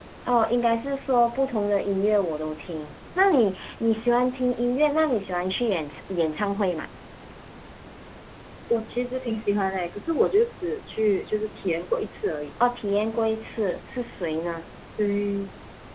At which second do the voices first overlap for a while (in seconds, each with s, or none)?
none